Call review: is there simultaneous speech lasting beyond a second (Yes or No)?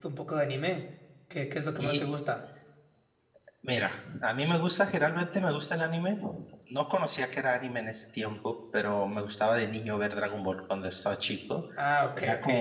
No